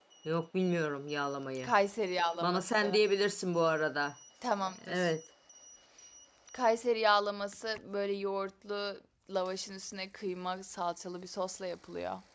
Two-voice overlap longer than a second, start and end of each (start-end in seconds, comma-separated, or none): none